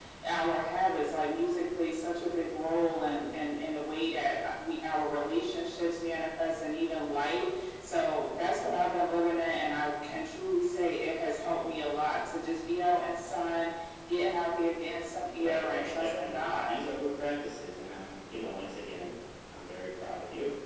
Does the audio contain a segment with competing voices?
Yes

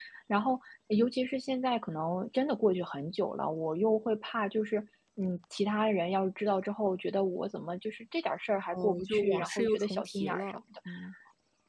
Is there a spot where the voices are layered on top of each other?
Yes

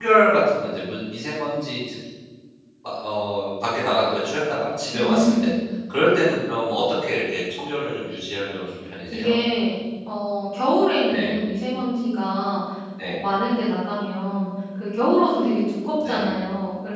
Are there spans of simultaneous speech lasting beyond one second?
No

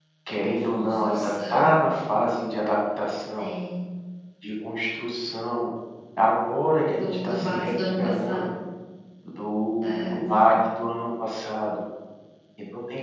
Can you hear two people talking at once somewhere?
Yes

